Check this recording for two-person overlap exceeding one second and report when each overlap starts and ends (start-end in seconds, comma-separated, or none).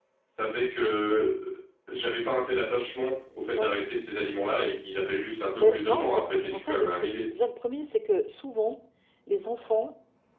5.6-7.2